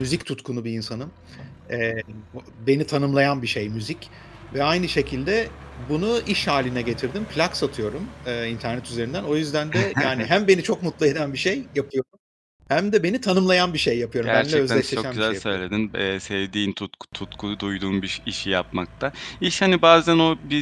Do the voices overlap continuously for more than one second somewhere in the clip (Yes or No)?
Yes